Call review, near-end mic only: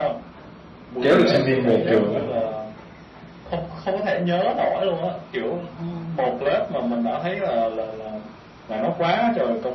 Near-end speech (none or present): present